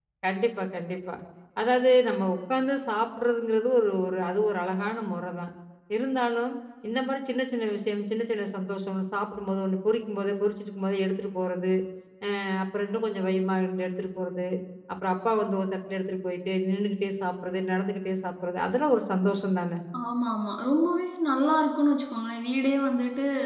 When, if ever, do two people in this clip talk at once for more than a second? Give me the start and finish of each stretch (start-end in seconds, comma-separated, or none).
none